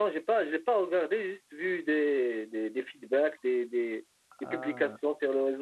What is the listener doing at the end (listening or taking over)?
listening